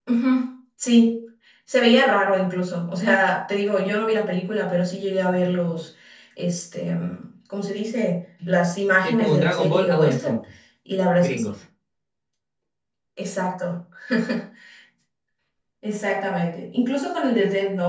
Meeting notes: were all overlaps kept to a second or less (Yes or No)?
No